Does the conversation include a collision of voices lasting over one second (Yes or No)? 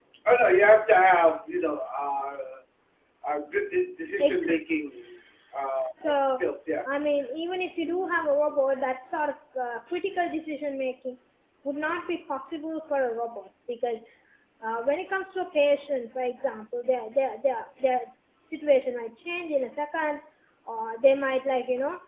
No